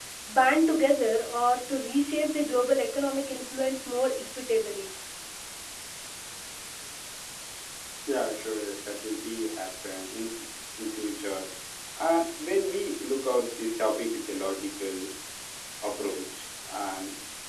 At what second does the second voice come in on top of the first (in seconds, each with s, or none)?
none